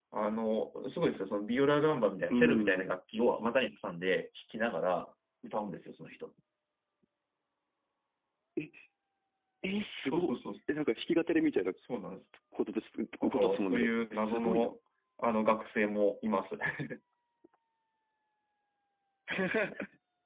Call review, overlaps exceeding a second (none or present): present